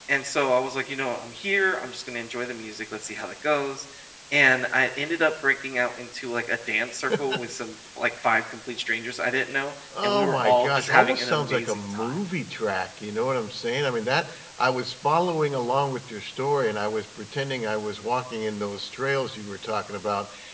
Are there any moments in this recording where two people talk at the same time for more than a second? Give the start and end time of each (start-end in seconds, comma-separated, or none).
10.0-12.2